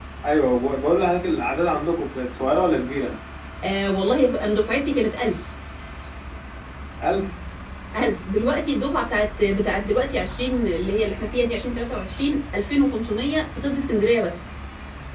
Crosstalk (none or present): none